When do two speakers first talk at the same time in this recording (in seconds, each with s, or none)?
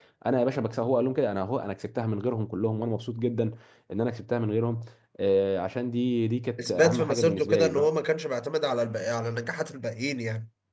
6.6 s